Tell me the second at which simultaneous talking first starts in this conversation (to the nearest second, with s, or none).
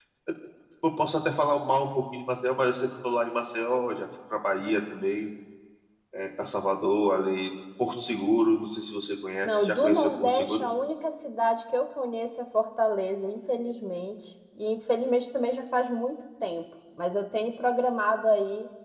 9 s